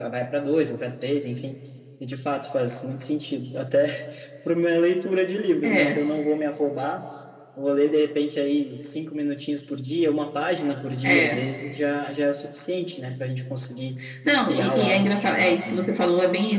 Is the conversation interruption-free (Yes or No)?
No